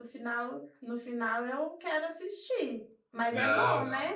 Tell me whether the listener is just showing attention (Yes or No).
No